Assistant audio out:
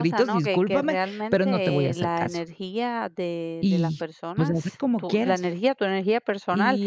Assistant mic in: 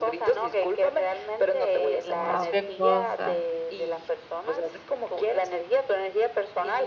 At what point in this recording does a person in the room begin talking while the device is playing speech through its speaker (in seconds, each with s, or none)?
2.2 s